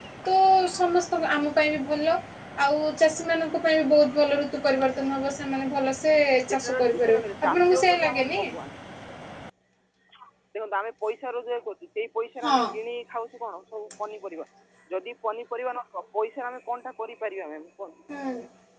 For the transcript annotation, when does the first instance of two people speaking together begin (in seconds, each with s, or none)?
6.5 s